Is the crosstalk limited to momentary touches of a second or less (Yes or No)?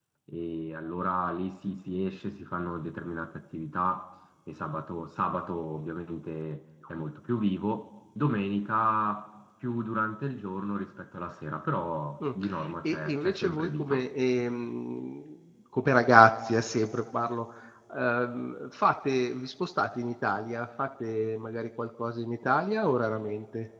No